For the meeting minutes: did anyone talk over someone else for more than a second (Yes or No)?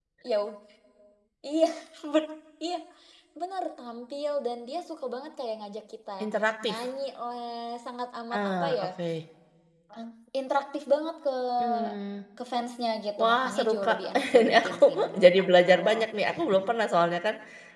Yes